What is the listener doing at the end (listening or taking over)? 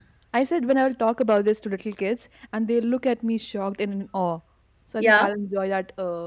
listening